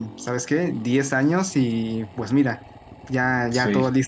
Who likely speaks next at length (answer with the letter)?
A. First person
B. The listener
A